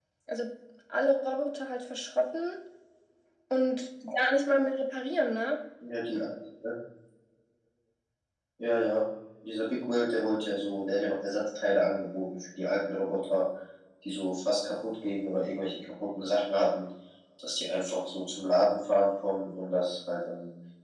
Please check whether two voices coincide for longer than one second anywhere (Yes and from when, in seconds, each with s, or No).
No